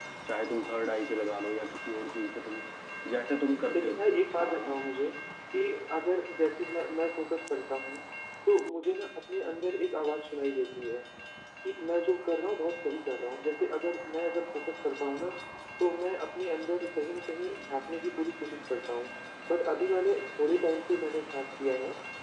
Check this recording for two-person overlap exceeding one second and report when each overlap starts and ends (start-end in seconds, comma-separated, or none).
none